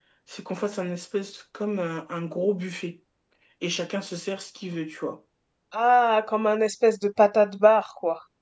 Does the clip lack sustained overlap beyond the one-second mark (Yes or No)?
Yes